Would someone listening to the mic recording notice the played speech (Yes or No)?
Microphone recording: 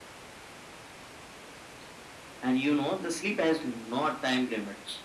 Yes